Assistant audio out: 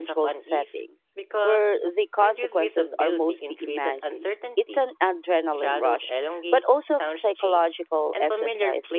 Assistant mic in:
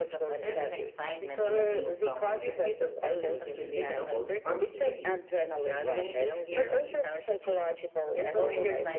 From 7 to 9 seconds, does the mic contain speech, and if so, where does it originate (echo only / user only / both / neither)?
both